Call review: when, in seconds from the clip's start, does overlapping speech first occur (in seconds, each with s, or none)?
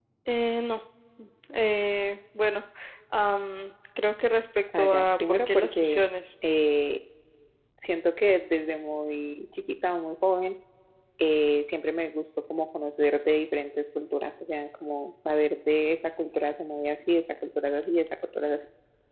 4.7 s